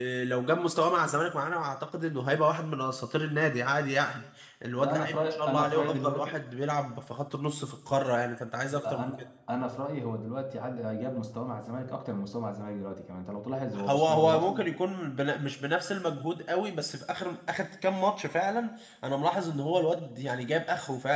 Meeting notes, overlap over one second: present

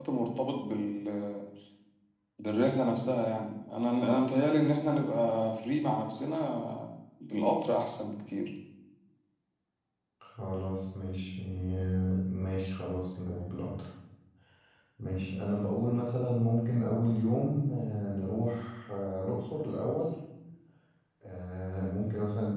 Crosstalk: none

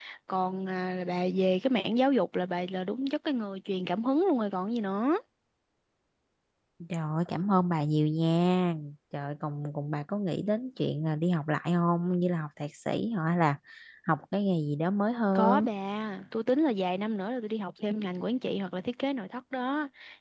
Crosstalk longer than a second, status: none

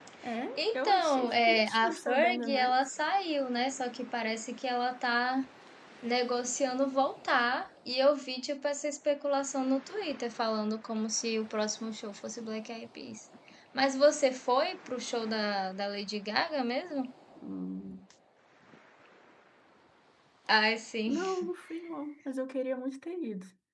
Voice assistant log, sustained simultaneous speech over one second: present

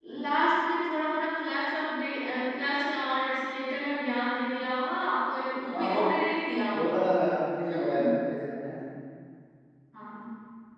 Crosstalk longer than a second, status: none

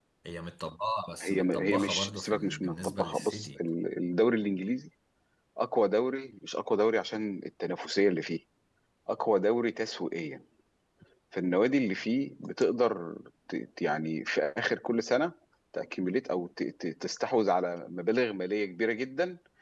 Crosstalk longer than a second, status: present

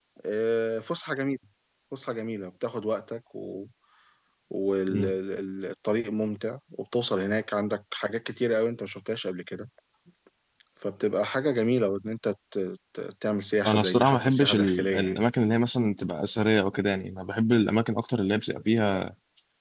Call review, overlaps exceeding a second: present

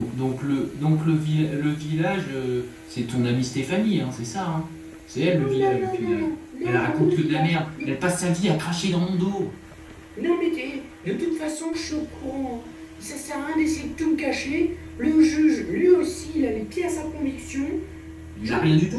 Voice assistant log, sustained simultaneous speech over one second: present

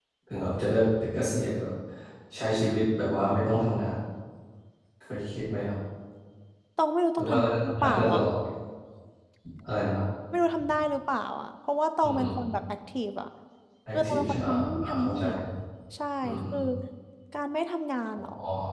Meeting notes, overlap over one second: present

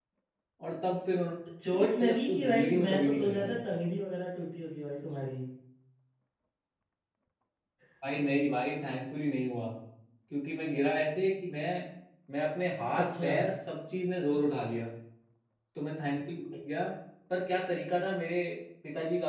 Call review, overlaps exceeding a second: present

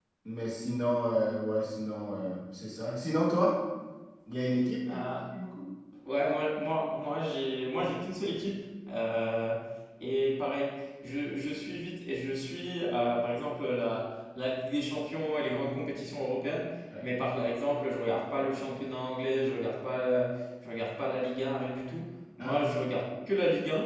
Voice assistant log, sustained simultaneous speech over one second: none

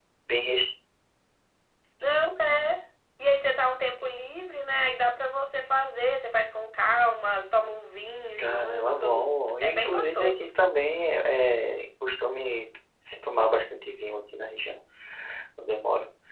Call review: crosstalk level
present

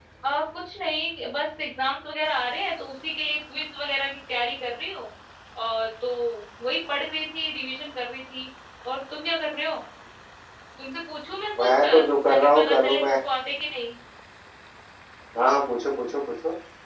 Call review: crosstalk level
present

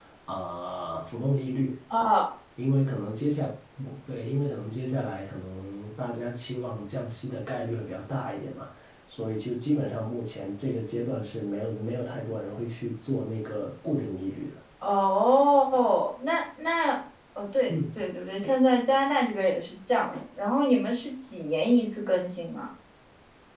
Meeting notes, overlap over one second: none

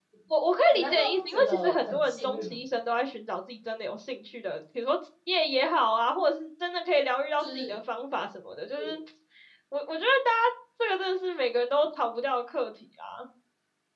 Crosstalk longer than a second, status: present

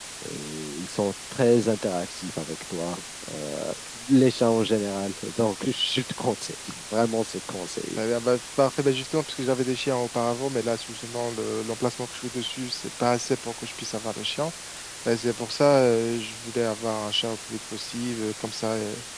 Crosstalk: none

